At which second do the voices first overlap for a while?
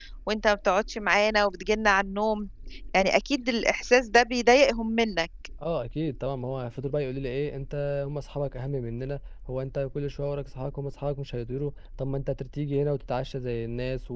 none

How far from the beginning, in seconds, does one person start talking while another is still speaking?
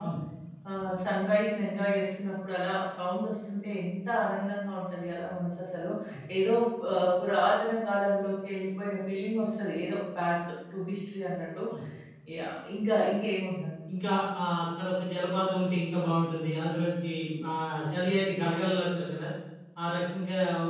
none

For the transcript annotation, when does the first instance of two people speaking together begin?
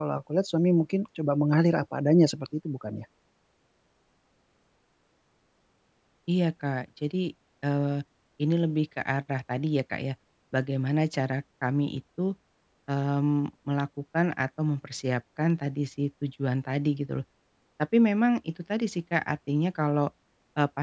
none

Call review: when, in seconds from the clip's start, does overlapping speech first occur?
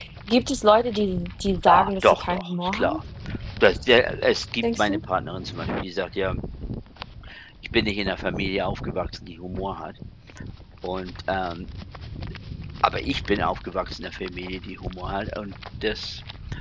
1.7 s

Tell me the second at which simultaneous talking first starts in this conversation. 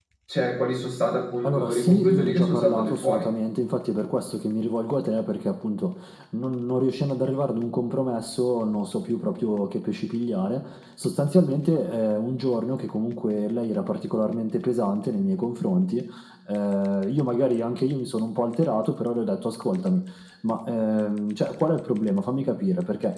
1.4 s

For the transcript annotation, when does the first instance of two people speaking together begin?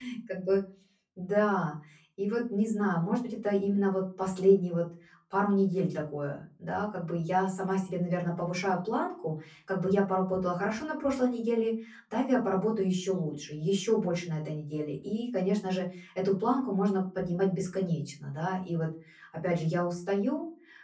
none

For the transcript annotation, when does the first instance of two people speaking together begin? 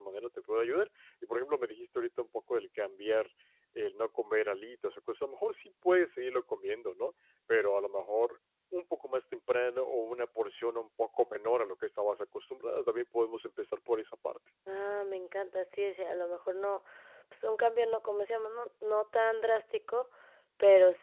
none

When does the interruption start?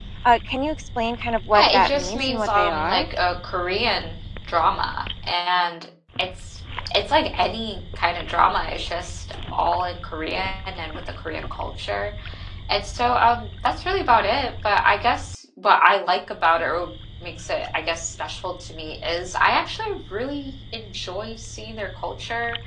1.6 s

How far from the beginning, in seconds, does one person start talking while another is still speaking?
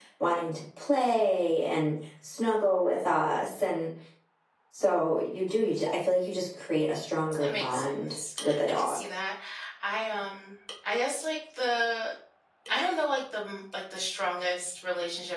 7.3 s

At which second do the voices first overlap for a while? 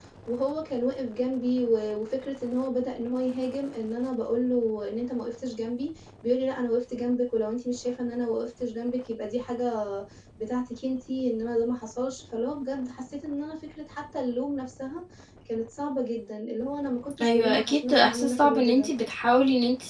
17.2 s

